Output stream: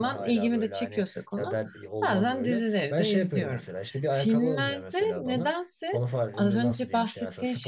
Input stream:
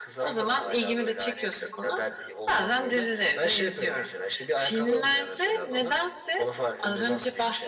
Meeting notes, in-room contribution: none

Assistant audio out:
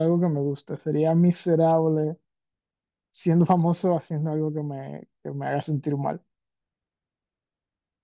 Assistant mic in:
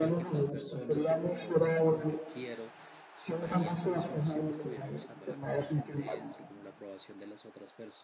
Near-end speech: present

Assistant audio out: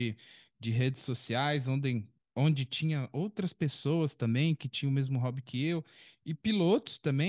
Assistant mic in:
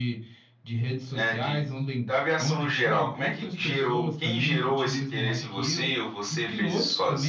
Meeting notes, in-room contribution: present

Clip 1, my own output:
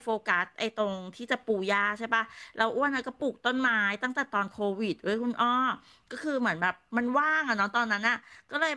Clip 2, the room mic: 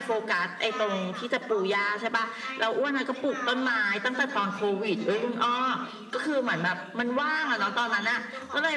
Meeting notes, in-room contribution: present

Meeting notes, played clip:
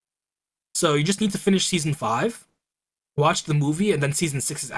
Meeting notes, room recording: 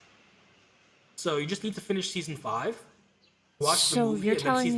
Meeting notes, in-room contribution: present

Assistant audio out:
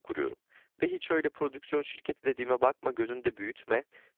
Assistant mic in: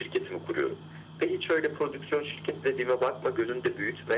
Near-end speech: none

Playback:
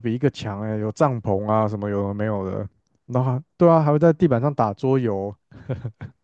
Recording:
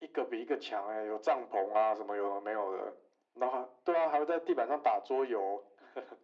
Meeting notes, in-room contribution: none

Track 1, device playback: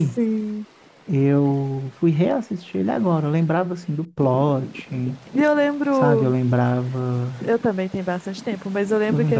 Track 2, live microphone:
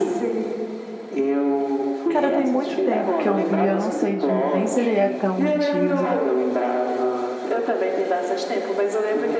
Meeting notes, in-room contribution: present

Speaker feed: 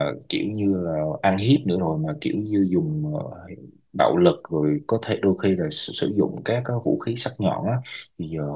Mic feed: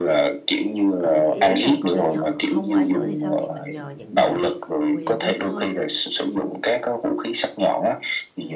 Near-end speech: present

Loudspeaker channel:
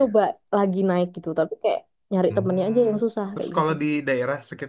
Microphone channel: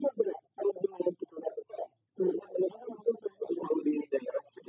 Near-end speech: none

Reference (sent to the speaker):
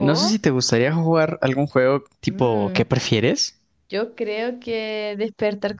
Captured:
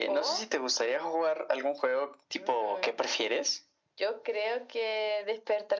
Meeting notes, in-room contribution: none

